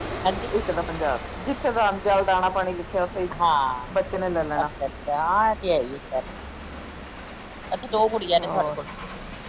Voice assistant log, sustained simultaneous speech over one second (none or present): none